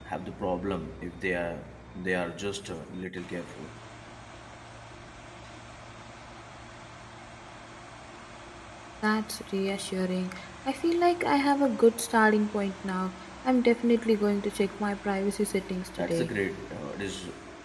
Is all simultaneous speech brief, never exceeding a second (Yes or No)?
Yes